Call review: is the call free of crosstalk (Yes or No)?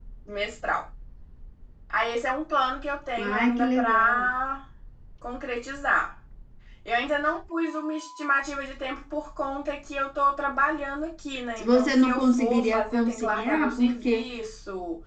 No